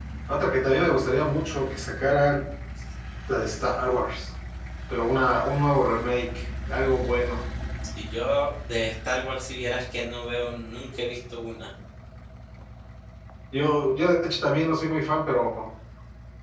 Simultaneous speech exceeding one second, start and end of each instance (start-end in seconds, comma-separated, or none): none